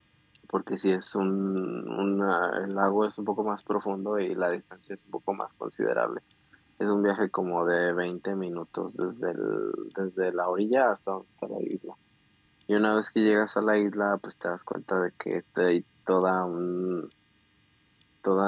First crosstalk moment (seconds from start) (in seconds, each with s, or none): none